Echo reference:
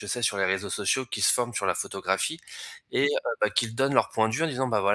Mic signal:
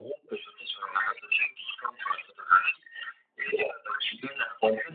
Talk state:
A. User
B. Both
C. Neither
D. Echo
D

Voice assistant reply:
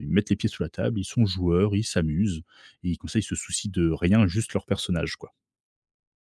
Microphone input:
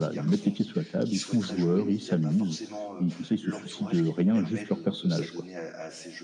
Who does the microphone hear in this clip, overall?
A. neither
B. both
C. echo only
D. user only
B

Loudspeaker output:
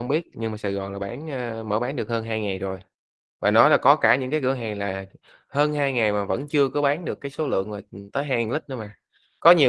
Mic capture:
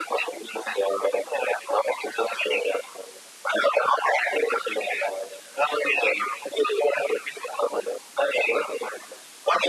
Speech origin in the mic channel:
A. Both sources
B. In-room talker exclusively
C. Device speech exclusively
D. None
C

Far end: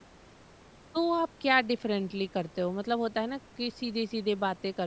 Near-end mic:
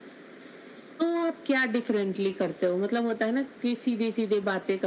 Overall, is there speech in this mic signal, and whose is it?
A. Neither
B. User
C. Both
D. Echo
D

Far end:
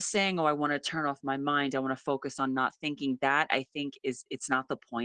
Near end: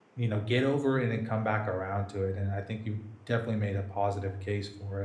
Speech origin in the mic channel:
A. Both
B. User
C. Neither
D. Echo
B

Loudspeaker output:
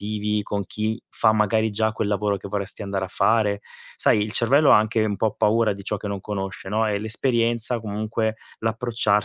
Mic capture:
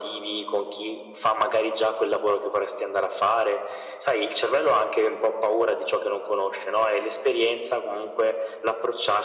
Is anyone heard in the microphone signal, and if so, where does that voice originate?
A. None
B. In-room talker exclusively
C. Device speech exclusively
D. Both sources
C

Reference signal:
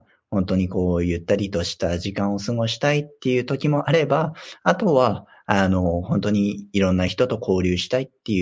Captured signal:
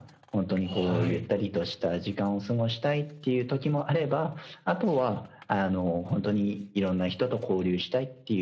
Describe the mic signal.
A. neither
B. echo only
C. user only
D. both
D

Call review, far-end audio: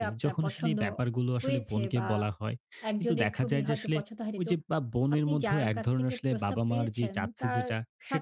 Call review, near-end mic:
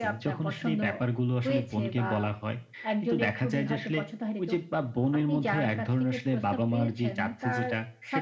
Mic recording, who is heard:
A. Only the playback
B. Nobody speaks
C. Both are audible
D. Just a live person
A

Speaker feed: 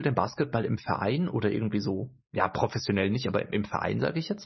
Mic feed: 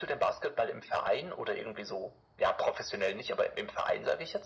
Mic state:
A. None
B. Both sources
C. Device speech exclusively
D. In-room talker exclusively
C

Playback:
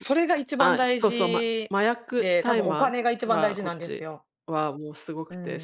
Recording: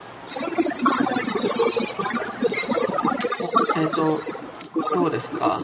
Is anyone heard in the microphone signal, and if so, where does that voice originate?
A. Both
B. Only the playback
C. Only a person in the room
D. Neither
A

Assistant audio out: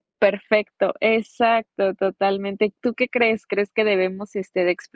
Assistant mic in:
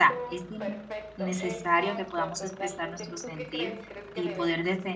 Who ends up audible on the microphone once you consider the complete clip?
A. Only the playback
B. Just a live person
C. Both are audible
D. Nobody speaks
C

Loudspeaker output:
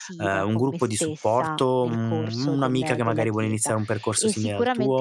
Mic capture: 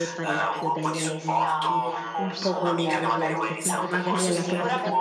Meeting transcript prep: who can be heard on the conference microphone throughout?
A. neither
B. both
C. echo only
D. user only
B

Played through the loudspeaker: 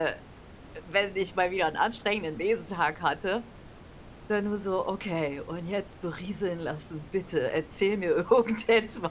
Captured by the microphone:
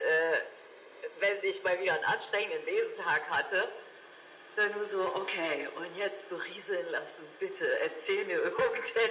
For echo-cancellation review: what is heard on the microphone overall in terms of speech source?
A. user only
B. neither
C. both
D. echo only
D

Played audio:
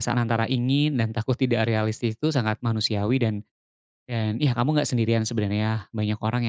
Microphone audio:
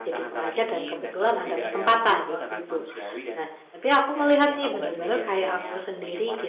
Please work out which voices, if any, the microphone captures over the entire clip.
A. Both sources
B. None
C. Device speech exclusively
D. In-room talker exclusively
A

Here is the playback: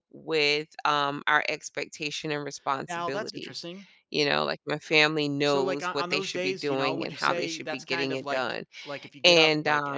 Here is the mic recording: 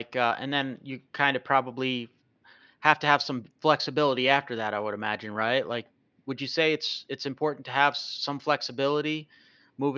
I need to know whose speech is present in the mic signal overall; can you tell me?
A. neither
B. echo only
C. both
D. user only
D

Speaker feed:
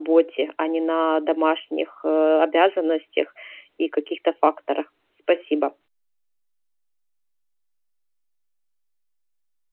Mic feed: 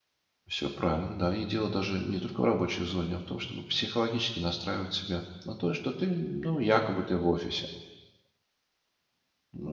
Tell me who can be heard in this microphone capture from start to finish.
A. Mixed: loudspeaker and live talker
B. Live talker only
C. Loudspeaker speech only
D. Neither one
B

